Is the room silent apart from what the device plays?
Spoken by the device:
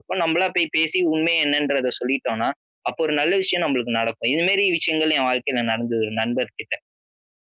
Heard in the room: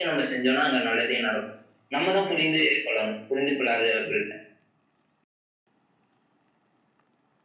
No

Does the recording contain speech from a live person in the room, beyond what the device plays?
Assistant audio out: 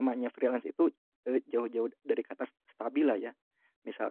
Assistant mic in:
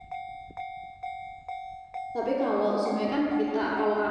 Yes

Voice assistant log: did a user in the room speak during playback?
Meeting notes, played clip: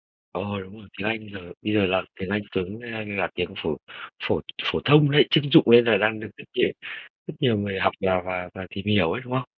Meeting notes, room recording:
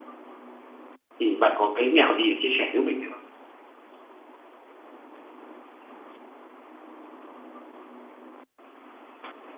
Yes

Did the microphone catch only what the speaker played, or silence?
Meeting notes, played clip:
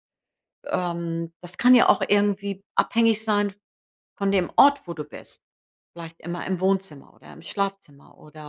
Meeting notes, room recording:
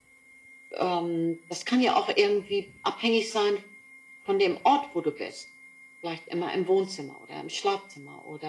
Yes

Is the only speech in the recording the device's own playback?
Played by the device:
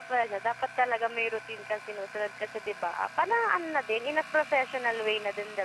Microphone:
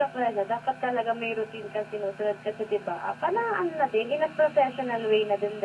Yes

